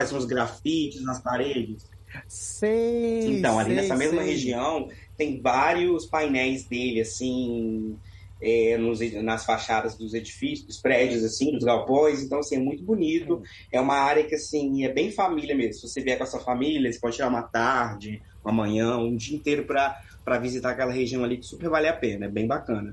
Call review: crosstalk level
present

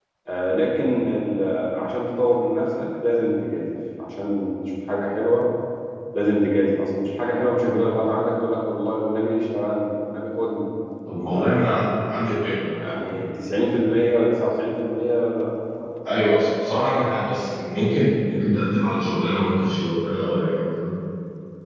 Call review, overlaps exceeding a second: none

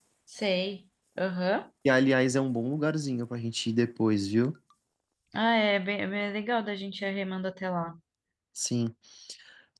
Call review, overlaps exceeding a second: none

